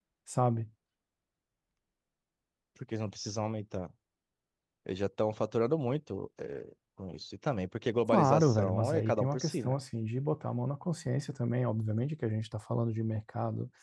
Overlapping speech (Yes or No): Yes